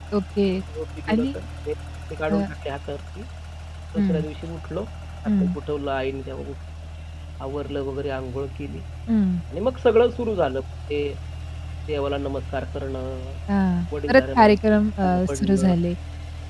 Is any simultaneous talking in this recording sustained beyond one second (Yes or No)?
Yes